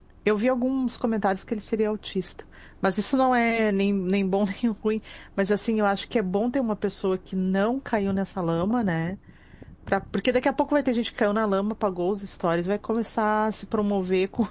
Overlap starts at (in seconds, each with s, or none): none